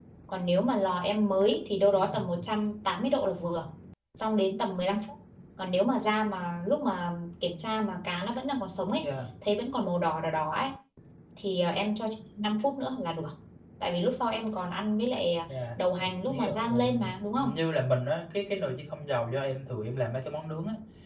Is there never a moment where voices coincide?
No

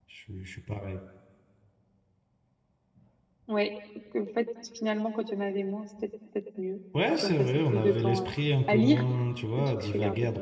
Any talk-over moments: Yes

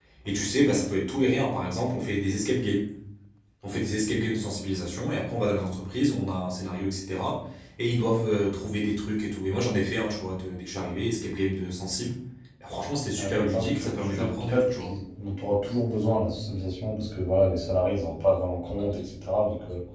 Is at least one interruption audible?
Yes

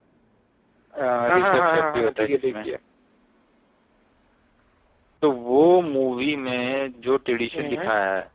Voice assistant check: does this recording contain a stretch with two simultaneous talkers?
Yes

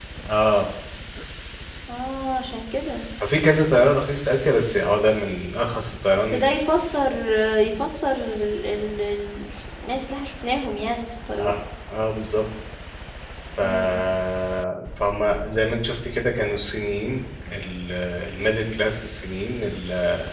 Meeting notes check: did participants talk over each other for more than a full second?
No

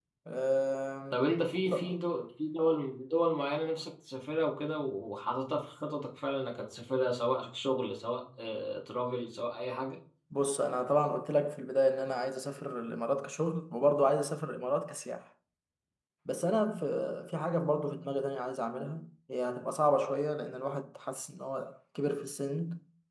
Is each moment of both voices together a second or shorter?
Yes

